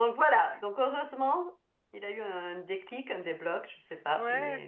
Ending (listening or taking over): taking over